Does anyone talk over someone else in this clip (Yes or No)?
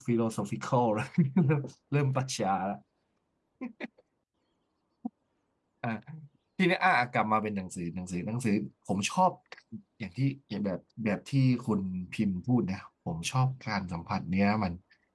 No